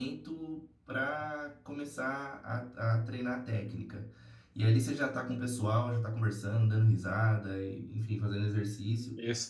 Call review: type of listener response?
taking over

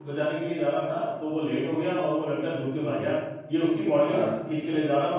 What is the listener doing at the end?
listening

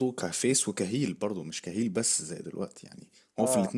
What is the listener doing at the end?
listening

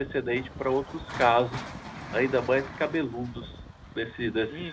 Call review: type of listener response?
taking over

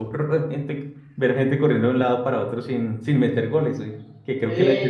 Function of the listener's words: listening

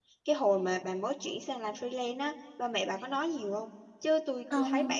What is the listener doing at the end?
listening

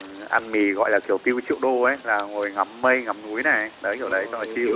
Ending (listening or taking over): taking over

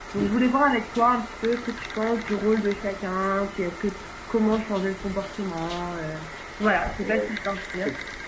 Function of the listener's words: taking over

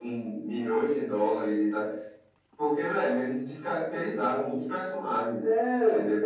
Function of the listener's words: taking over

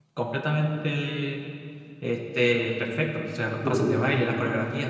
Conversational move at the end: listening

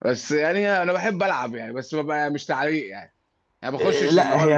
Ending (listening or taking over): taking over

